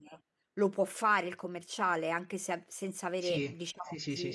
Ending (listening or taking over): taking over